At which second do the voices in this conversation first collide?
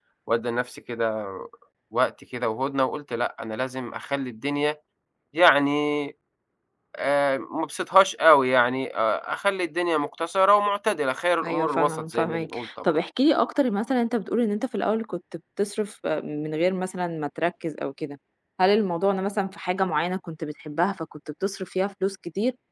11.4 s

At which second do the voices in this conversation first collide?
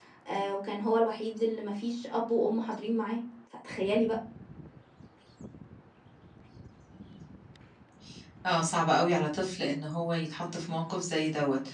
none

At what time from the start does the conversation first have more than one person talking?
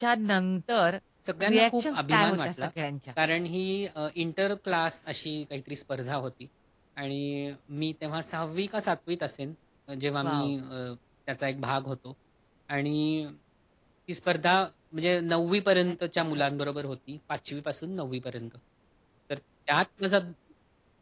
1.5 s

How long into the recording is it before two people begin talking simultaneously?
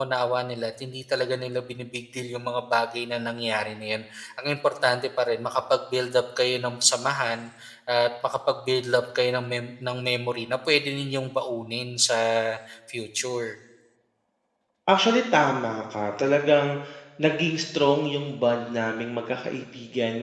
none

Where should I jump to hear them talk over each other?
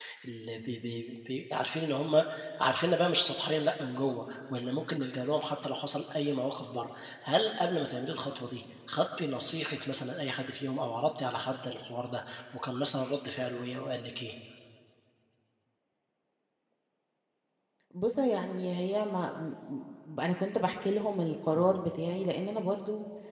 none

